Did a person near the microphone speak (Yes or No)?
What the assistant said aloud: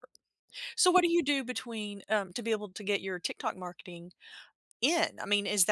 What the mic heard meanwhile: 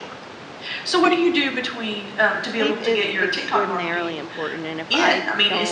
Yes